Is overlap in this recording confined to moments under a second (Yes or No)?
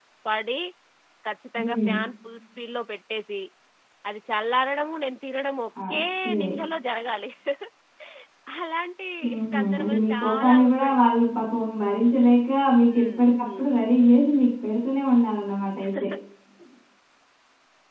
No